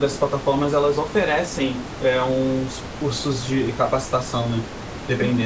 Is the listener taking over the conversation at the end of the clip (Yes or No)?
Yes